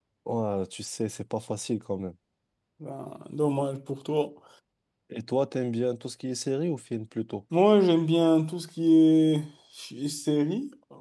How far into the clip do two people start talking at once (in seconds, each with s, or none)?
none